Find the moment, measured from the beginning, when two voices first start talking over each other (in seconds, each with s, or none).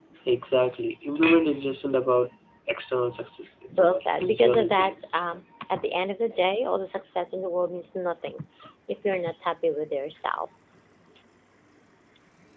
3.8 s